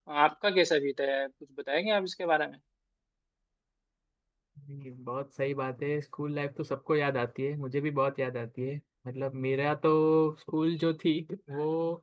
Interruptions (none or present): none